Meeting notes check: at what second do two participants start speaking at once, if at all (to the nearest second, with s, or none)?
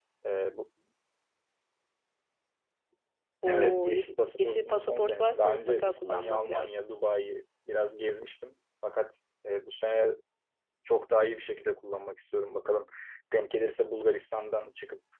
3 s